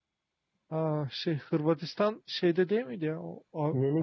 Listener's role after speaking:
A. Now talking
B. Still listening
A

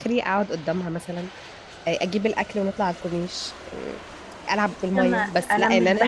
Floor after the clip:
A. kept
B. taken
B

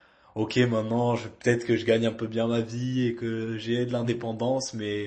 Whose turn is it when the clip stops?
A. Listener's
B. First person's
B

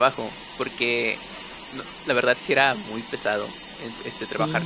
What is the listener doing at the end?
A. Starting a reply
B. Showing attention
B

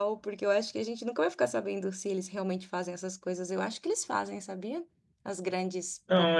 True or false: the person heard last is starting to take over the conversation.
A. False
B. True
B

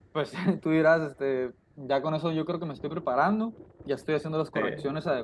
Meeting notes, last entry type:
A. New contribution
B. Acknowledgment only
B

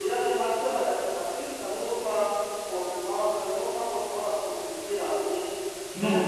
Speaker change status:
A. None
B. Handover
A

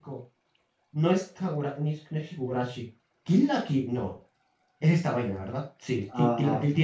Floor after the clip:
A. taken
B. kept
B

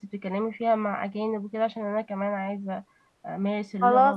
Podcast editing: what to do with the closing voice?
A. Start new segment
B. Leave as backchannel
A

